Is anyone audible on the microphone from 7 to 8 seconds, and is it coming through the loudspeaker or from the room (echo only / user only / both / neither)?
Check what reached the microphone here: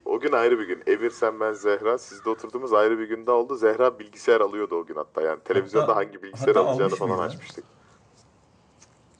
both